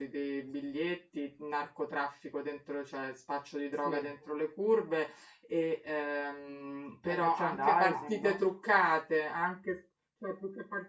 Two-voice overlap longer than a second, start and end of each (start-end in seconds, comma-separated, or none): 7.1-8.4